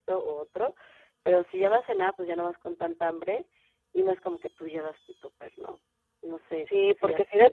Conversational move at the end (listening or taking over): taking over